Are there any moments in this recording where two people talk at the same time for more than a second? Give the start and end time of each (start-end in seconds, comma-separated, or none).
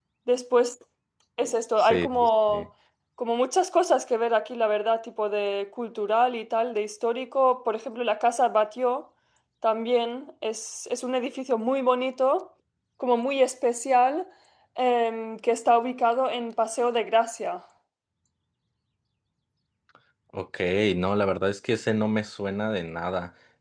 none